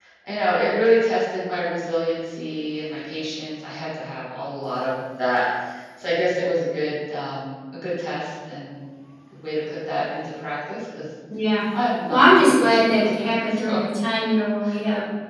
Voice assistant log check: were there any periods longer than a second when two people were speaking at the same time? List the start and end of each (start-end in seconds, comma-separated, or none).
12.1-13.8